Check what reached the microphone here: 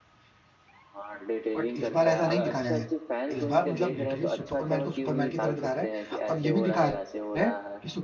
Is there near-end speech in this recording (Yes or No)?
Yes